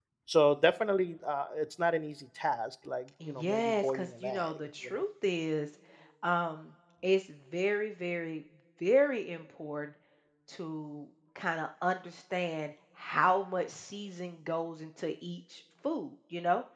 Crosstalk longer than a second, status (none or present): present